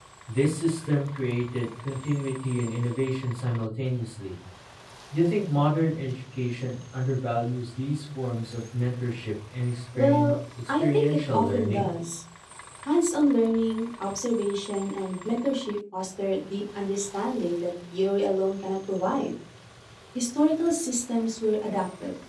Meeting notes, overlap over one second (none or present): present